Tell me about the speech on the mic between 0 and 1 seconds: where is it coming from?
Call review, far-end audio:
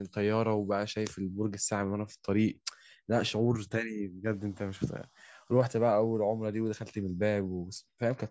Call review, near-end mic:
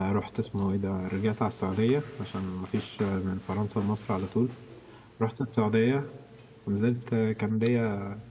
user only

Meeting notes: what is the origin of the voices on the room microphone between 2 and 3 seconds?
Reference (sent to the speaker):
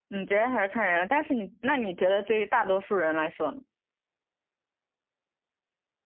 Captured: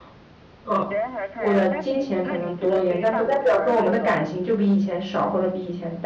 both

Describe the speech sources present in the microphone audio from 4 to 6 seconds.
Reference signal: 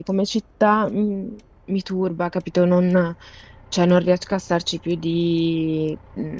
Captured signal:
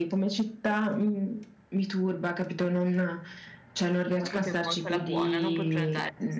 both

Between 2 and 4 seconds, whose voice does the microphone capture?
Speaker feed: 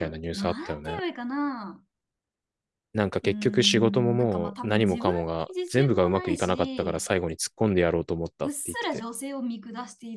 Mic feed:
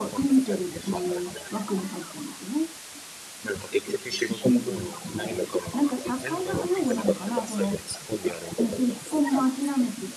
both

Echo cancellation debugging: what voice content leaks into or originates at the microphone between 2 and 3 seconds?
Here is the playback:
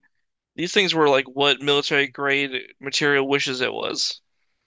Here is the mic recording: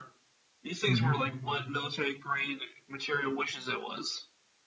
echo only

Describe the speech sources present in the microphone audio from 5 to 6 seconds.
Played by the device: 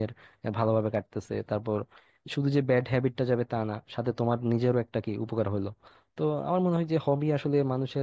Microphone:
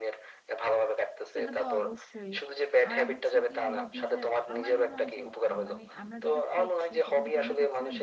both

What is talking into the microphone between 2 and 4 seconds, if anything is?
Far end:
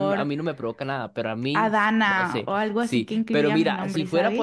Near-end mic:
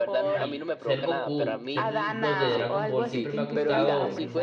both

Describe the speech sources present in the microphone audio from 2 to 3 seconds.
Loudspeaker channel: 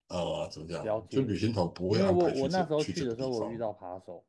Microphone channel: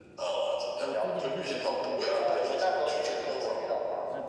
both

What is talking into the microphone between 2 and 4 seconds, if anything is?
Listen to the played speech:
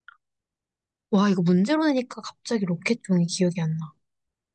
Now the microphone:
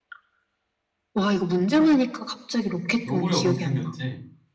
both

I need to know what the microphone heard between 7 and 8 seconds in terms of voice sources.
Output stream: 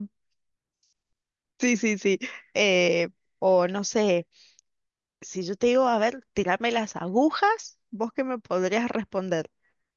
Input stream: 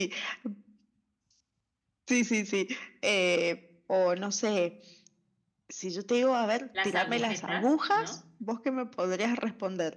both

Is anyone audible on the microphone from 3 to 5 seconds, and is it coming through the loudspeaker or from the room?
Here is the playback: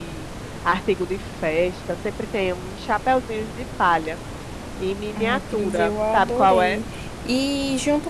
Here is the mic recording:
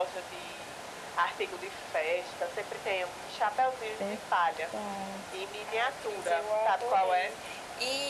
both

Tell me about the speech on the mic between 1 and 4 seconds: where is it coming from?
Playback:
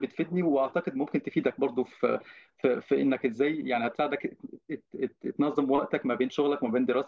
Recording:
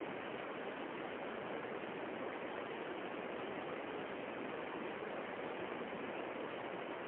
neither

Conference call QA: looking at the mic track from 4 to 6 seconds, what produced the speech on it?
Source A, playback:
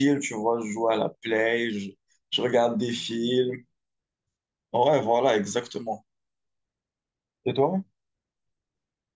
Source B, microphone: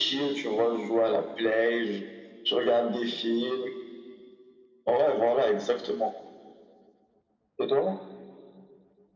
echo only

